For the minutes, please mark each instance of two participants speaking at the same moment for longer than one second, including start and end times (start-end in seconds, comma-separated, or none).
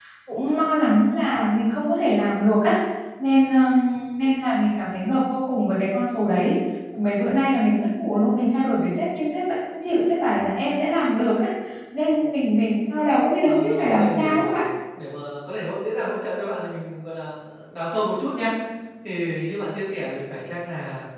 13.4-14.6